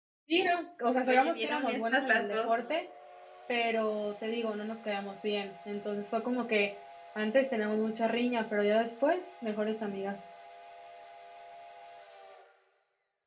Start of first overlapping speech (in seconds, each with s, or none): 1.1 s